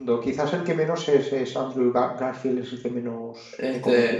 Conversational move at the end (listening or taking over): taking over